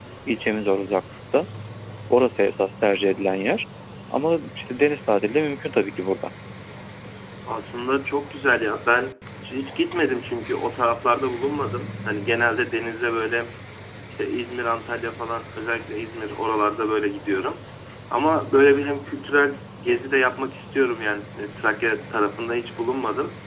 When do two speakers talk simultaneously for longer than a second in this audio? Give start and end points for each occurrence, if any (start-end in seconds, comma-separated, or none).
none